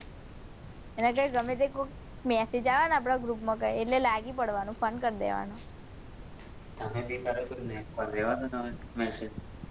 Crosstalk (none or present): none